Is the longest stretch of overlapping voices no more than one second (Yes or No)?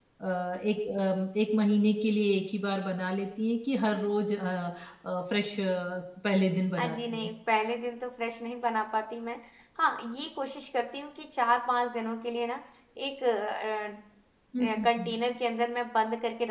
Yes